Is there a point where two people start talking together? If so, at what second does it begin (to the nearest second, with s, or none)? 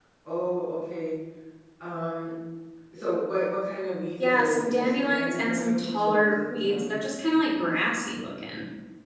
4 s